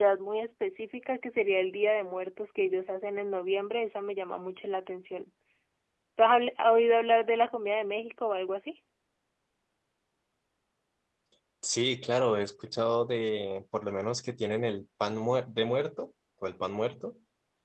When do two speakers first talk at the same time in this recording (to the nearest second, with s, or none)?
none